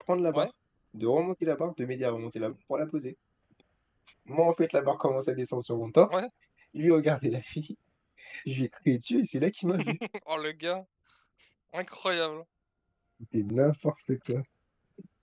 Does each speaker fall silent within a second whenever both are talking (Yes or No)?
Yes